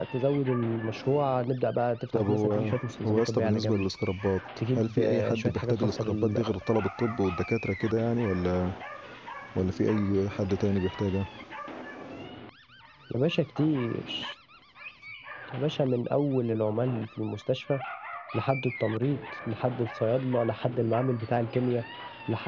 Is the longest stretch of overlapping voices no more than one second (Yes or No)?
No